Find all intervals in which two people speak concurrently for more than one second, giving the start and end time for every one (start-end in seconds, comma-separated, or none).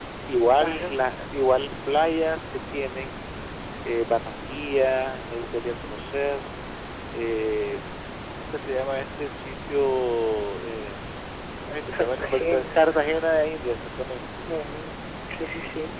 12.0-13.2